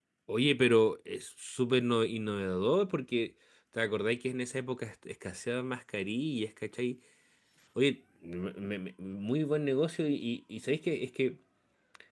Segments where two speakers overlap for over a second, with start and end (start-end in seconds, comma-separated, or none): none